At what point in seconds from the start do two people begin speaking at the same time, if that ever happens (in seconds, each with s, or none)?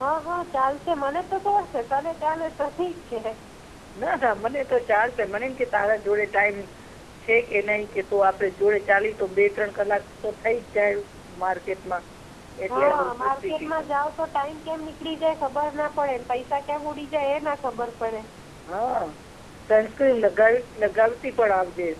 12.7 s